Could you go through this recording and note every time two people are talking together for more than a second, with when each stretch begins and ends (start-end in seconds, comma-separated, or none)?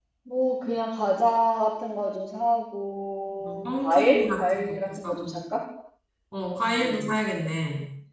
3.4-5.4